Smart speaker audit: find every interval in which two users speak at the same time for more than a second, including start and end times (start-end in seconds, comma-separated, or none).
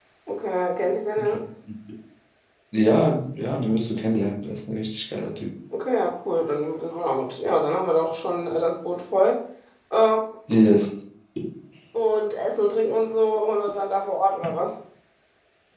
none